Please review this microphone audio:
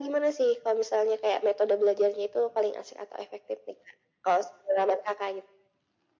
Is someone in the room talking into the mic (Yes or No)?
No